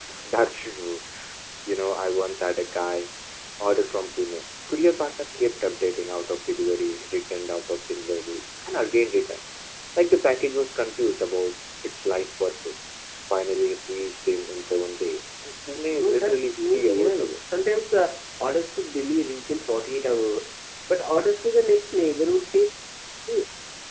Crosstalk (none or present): present